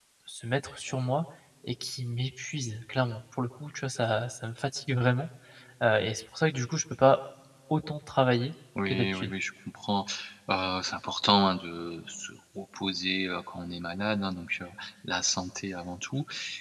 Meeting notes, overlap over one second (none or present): none